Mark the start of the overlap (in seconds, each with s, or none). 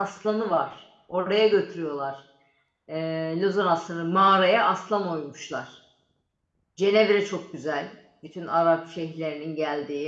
none